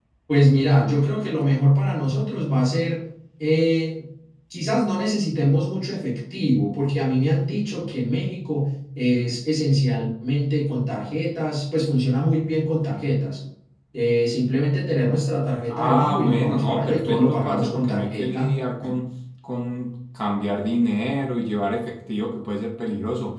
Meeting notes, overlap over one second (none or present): present